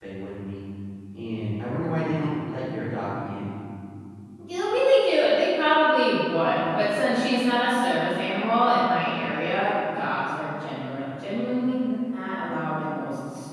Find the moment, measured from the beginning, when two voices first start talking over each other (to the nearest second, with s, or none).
none